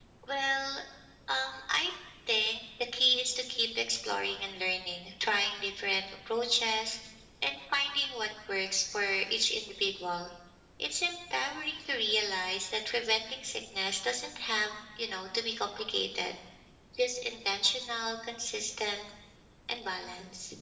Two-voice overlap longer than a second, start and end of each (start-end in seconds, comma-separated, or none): none